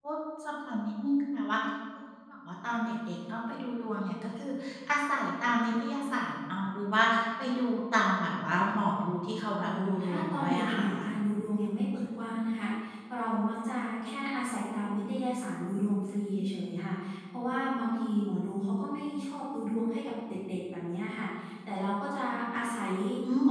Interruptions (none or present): present